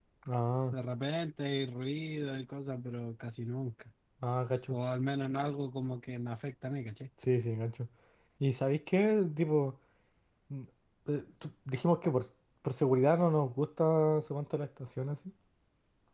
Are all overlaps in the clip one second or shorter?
Yes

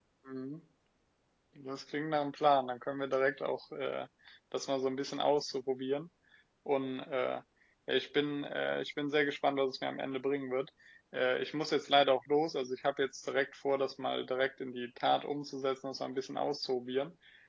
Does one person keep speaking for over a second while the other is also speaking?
No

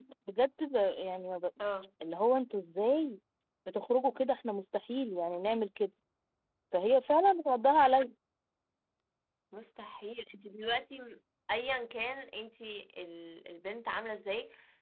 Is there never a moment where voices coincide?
Yes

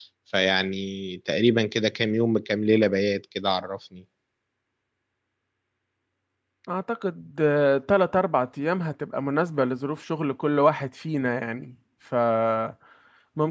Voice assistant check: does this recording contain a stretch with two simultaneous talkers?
No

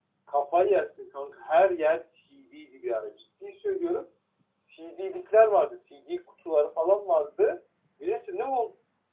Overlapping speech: No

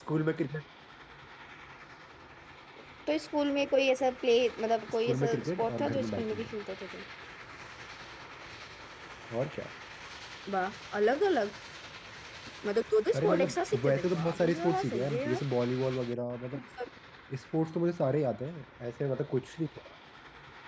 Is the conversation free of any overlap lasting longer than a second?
No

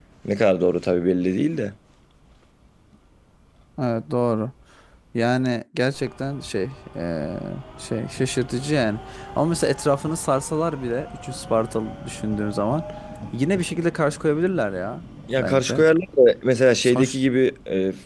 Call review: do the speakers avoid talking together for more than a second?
Yes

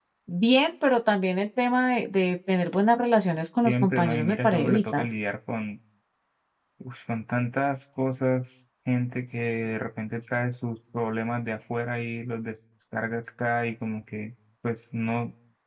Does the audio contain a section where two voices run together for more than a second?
Yes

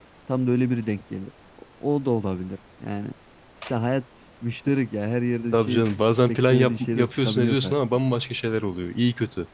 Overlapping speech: Yes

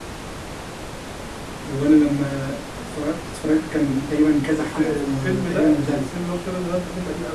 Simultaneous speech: Yes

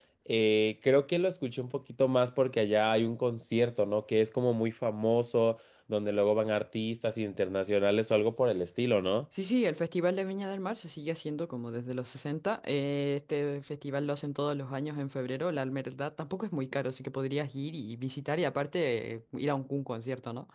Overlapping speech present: No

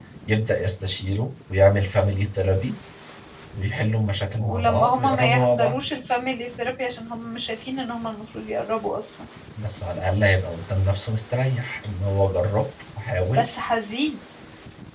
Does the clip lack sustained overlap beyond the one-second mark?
No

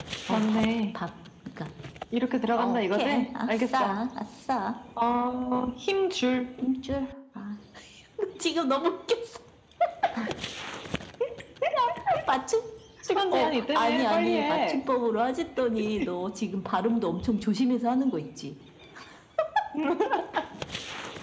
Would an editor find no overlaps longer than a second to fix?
No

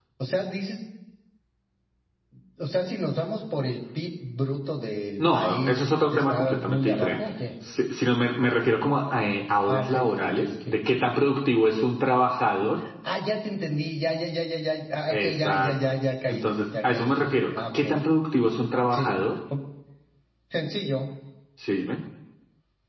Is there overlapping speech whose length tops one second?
Yes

